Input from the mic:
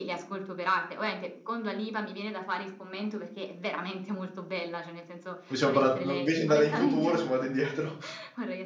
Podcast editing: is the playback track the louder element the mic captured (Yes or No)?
No